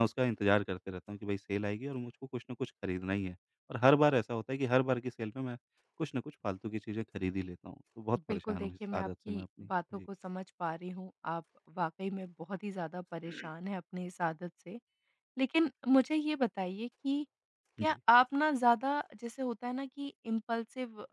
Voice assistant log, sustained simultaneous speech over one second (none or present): present